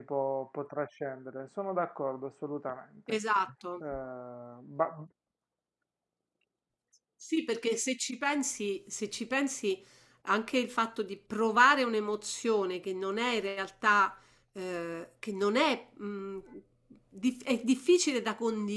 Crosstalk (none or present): none